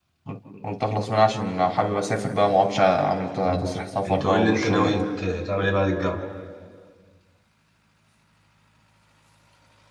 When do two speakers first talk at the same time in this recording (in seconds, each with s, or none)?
3.4 s